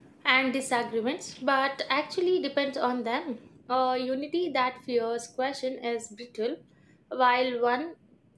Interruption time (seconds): none

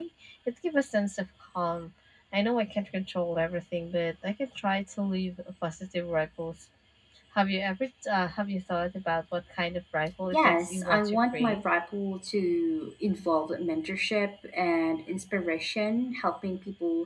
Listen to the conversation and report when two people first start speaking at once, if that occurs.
10.3 s

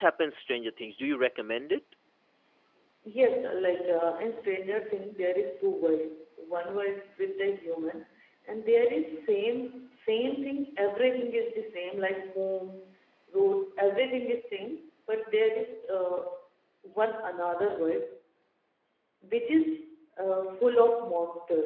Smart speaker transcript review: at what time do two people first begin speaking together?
none

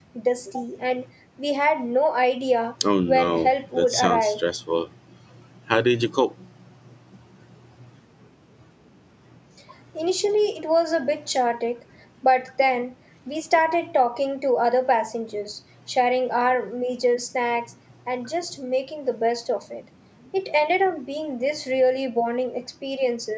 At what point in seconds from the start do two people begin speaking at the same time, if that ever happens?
3.1 s

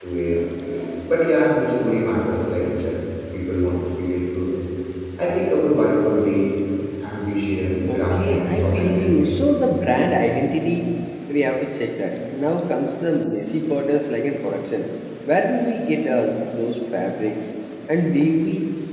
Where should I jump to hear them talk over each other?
7.9 s

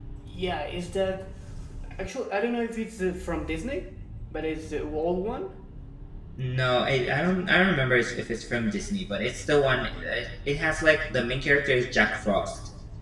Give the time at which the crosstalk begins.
none

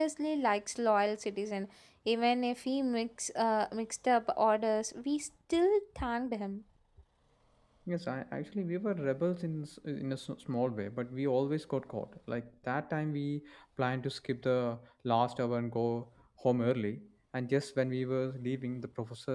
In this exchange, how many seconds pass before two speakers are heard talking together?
none

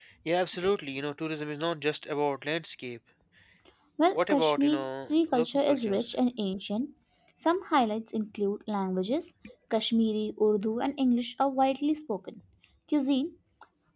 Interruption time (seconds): 4.1 s

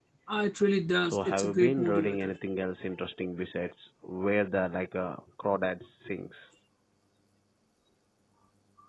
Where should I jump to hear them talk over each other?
1.0 s

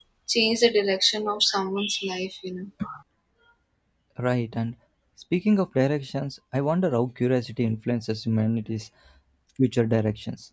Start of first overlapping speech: none

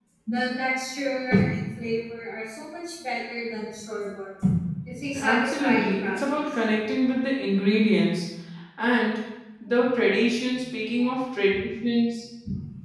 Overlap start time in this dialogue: 5.1 s

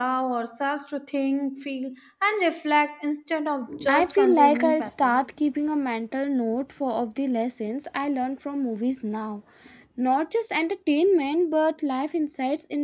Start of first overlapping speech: 3.7 s

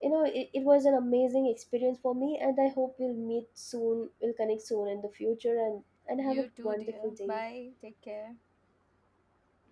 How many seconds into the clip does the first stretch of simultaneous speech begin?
6.2 s

